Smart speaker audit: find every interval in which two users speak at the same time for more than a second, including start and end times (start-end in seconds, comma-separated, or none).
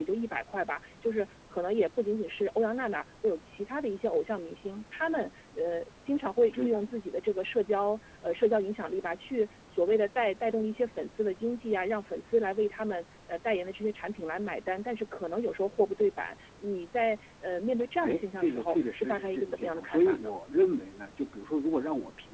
18.0-20.3